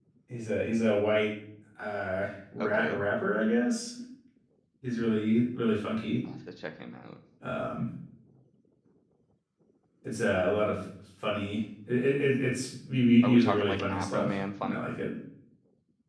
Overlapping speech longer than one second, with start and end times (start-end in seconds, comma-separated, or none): 13.2-14.8